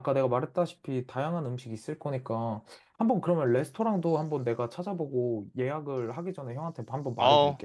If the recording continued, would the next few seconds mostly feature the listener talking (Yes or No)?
Yes